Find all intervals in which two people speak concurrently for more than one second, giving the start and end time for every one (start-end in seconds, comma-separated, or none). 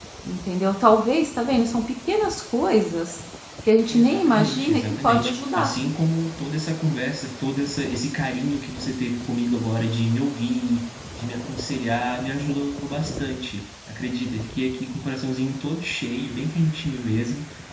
3.9-5.7